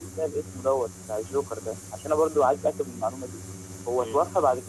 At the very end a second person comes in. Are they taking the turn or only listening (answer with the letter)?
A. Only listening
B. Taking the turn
A